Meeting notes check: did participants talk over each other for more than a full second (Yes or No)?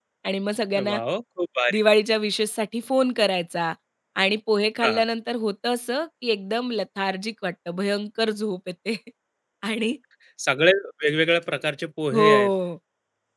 No